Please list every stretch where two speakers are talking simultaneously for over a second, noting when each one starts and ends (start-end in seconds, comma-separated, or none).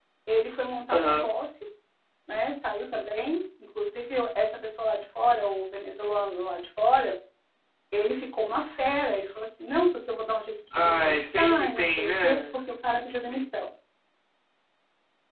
10.8-12.4